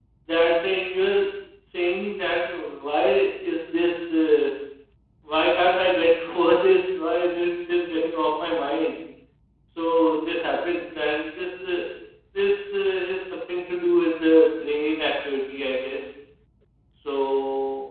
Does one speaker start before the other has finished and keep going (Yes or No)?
No